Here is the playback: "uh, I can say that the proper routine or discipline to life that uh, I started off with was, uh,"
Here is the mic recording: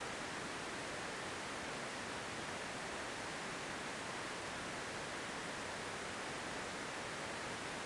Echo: none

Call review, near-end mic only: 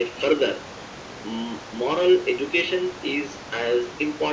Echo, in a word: present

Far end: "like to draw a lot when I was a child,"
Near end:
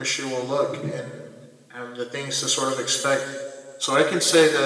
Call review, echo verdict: none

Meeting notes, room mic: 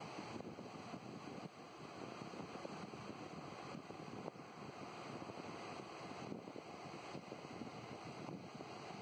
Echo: none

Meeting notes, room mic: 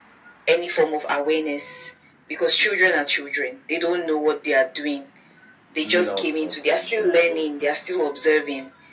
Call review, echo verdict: present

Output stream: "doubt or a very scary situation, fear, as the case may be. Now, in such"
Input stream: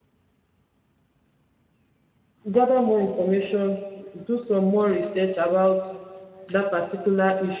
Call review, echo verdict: none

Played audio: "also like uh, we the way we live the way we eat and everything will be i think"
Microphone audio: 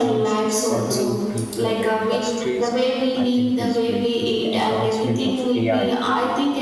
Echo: present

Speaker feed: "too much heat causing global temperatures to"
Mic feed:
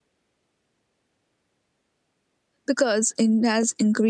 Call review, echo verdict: none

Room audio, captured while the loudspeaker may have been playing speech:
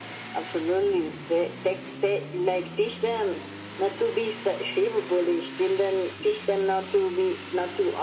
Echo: present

